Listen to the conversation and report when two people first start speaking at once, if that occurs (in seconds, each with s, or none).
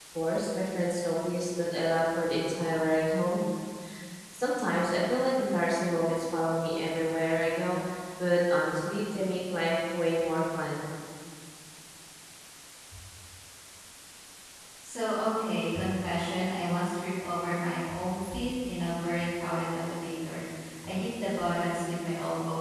none